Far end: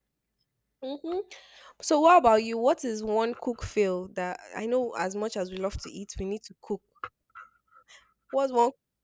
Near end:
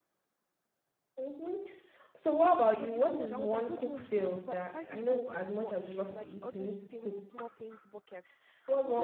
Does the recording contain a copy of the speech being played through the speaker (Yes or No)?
Yes